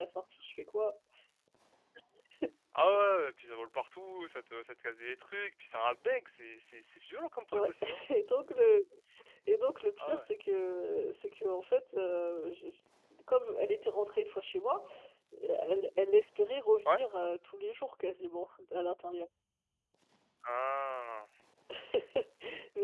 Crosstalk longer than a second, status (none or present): none